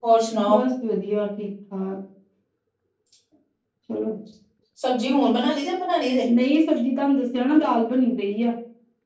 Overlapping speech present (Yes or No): No